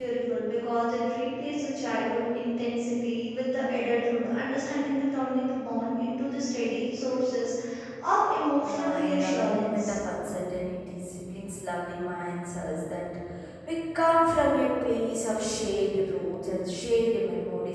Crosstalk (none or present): present